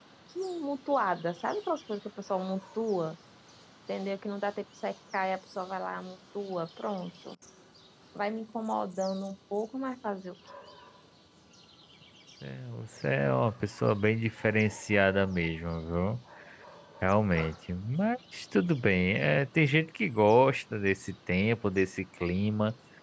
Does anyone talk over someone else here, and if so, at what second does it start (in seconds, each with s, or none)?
none